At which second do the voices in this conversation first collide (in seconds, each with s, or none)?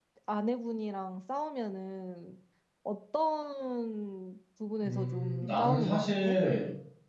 4.8 s